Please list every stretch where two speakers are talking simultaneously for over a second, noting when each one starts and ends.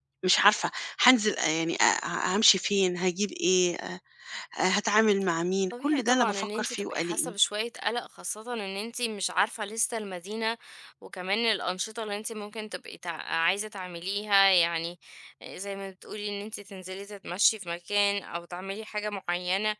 5.7-7.3

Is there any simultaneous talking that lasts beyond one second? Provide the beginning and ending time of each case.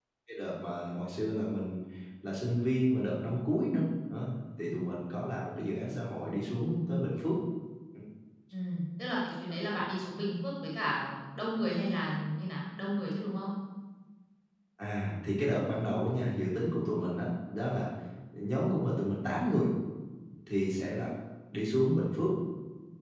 none

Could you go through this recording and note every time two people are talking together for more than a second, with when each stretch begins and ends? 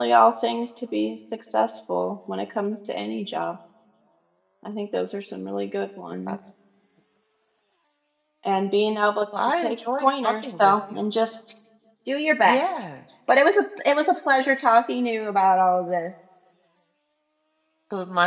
9.6-11.0

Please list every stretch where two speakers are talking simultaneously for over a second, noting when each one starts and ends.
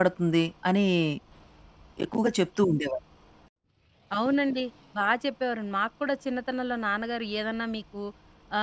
none

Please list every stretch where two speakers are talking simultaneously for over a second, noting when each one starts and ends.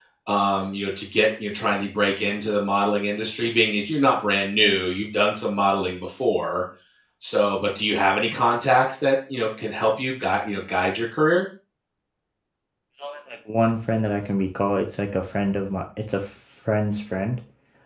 none

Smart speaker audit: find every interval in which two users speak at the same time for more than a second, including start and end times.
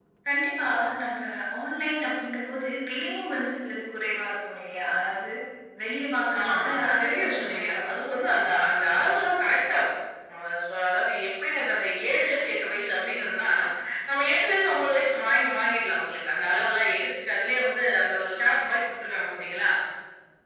6.4-7.9

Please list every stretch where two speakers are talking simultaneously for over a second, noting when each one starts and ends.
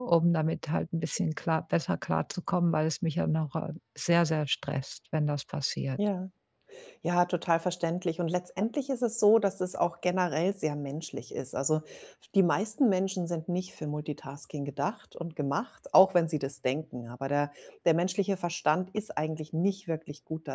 none

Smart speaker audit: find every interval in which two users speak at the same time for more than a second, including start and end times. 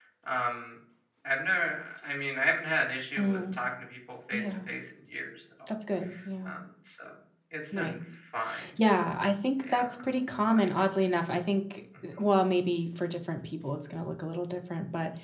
none

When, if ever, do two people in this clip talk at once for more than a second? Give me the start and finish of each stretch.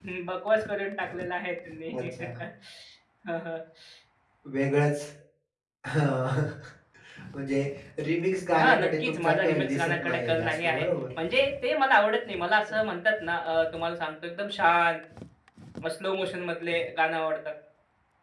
8.6-10.8

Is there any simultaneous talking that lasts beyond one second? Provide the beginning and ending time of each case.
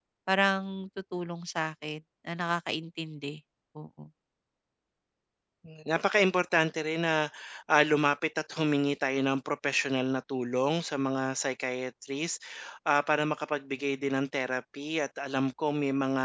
none

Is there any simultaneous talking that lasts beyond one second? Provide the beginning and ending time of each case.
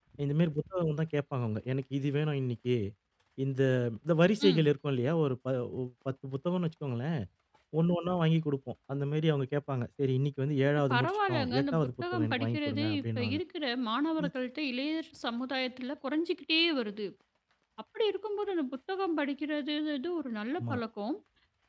10.9-13.4

